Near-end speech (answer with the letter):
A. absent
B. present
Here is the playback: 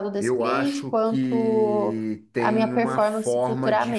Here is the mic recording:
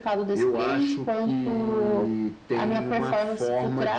A